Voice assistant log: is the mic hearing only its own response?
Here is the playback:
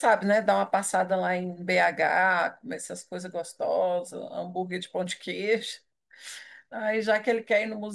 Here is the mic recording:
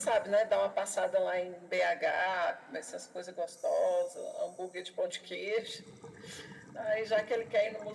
Yes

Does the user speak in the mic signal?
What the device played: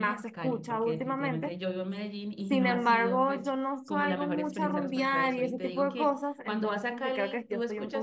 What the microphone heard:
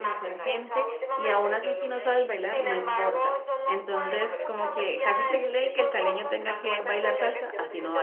Yes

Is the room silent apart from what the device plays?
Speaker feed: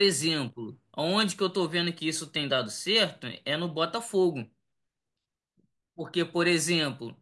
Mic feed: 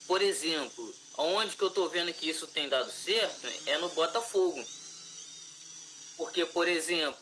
Yes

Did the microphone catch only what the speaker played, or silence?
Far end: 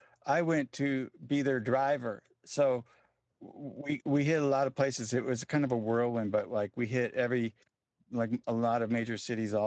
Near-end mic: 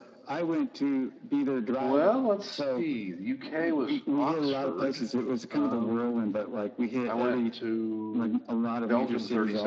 No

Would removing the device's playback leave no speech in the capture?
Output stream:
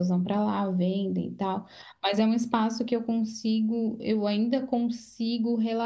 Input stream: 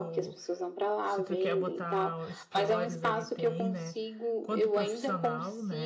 No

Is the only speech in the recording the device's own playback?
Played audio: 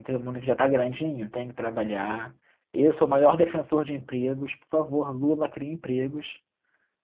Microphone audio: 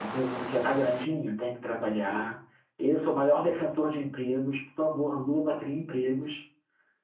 Yes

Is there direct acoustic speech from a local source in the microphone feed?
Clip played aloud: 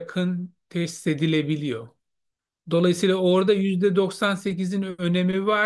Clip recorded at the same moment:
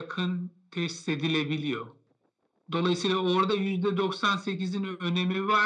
No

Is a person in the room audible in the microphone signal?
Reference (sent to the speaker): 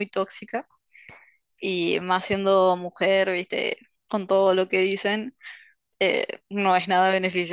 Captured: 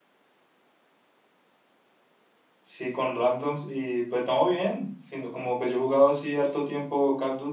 Yes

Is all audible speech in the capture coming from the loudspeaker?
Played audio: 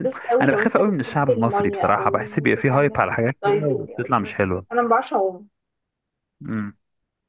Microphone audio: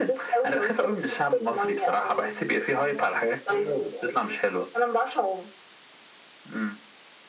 Yes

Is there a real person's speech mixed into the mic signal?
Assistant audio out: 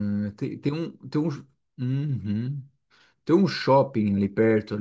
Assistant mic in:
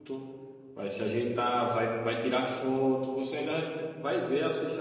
Yes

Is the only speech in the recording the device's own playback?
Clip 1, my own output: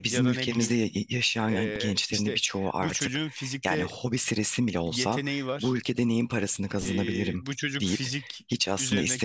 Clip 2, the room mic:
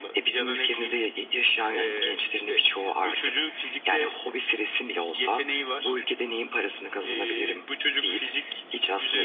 Yes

